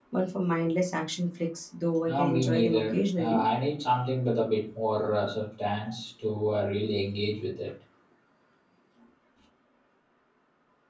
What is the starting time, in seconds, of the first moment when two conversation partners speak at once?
2 s

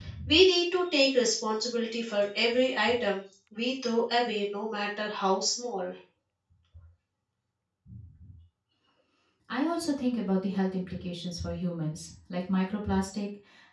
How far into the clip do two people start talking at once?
none

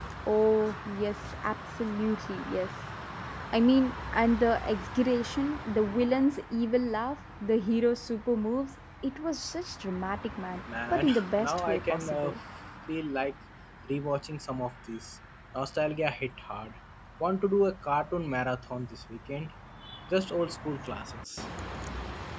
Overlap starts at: 11 s

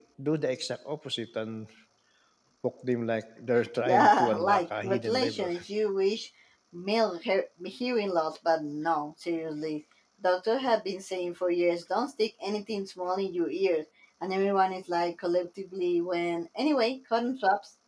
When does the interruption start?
4 s

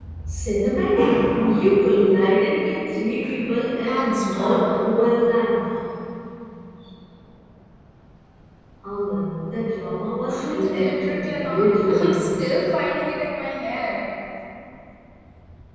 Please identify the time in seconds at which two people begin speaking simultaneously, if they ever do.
4 s

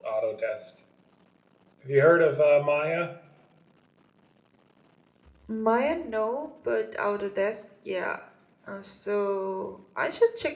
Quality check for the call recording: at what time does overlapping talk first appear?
none

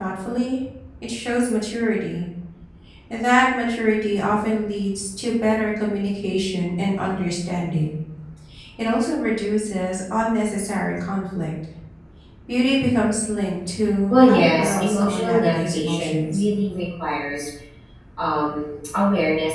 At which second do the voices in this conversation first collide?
14 s

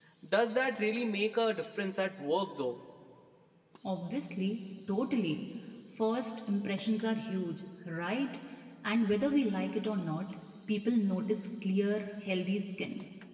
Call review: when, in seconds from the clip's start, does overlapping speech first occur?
none

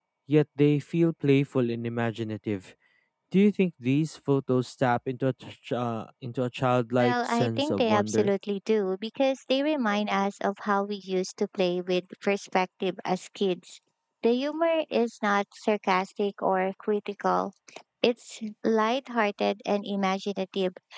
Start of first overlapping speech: 7 s

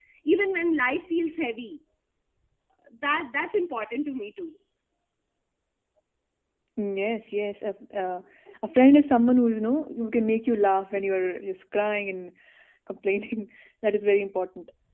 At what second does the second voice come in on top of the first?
none

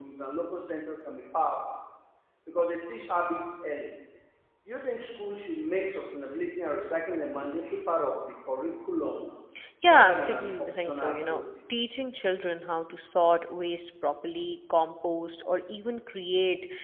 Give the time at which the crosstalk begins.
10 s

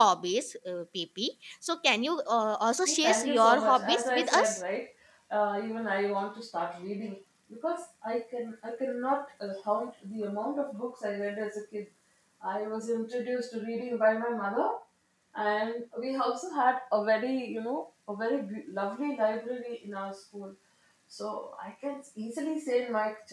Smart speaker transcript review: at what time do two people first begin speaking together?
3 s

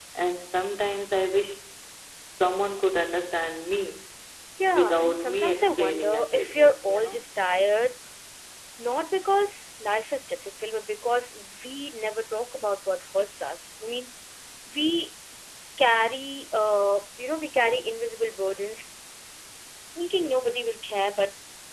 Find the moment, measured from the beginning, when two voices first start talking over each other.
5 s

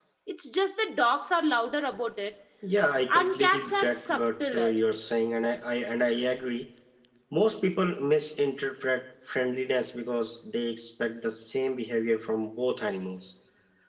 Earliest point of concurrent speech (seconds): 3 s

